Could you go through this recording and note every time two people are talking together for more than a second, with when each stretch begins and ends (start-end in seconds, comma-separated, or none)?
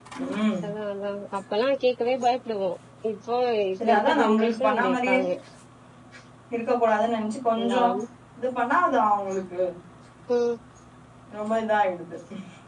3.9-5.2